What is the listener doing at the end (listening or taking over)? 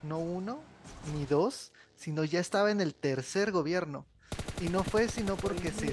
listening